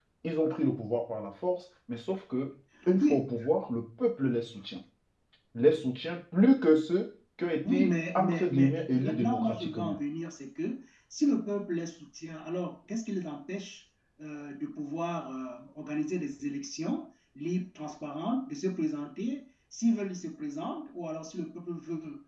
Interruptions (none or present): present